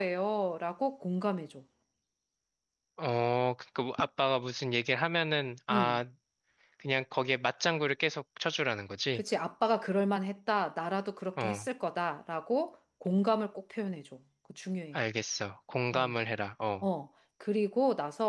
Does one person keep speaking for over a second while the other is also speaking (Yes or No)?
No